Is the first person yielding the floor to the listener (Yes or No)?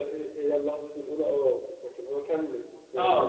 Yes